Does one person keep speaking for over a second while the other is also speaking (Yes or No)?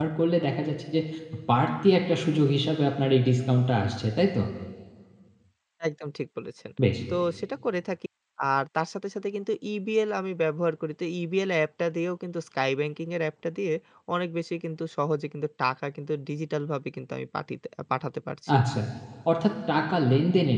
No